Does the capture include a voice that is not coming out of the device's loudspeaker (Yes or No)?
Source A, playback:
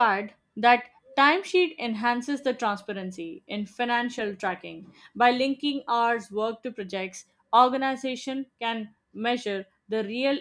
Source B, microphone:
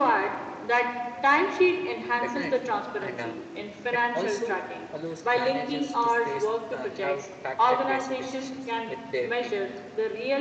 Yes